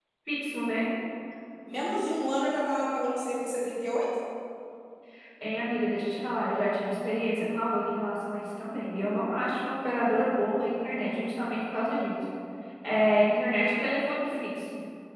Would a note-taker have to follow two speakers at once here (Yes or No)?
No